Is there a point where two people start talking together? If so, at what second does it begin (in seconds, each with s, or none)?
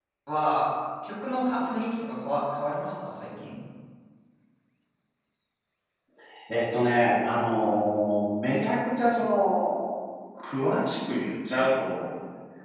none